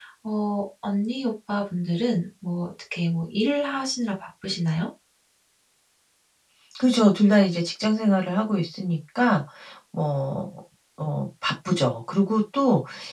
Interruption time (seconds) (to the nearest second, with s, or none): none